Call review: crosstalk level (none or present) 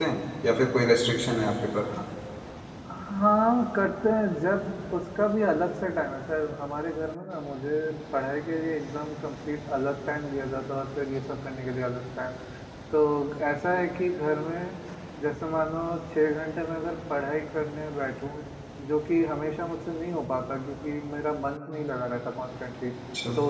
none